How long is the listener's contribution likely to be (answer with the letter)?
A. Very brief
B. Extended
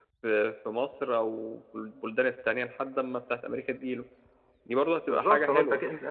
B